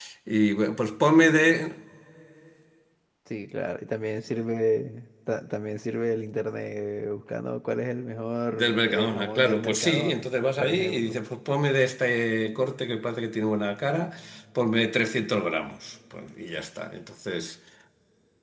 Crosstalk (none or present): present